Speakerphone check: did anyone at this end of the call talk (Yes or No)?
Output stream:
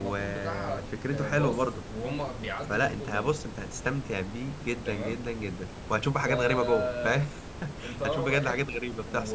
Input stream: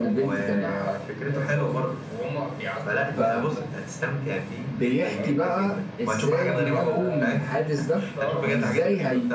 Yes